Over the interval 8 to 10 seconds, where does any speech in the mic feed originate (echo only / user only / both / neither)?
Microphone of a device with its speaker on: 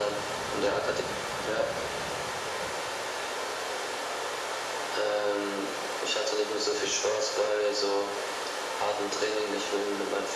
echo only